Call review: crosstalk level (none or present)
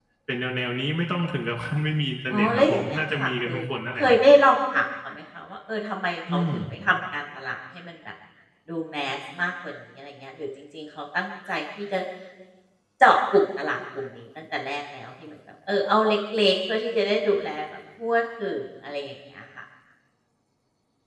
present